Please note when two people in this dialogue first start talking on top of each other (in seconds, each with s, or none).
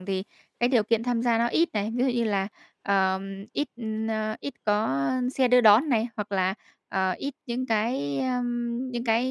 none